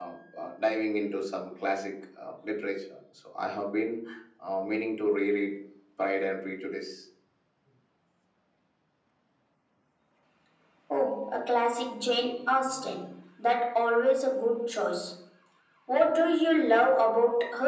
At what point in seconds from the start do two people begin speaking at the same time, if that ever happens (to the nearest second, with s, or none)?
none